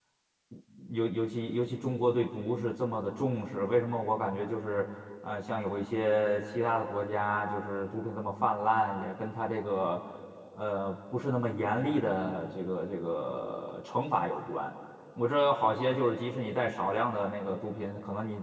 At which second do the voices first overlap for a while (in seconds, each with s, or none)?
none